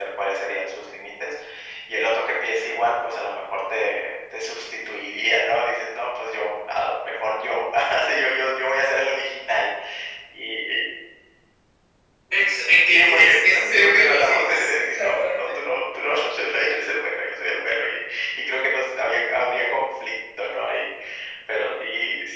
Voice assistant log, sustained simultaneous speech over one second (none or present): present